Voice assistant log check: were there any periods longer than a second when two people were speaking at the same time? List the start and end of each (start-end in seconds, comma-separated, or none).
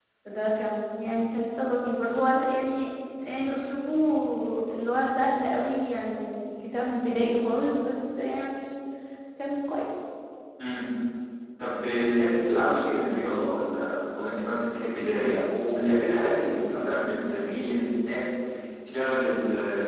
none